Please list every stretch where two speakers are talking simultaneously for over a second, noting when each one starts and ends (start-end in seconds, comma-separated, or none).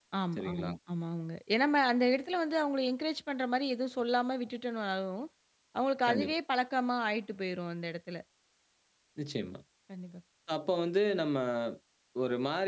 none